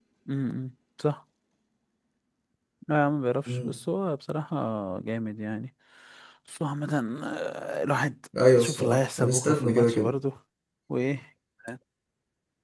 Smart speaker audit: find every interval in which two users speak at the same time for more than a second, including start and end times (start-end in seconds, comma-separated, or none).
8.6-10.1